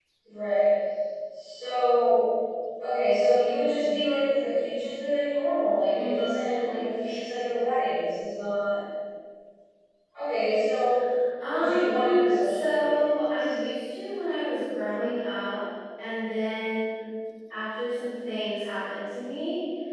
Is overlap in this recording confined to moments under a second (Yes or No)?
No